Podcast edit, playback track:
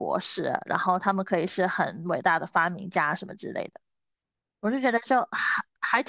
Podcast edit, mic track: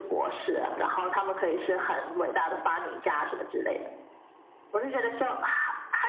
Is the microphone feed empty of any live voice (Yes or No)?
Yes